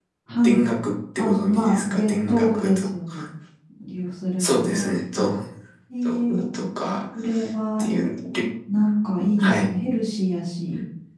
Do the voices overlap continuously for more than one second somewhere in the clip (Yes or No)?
Yes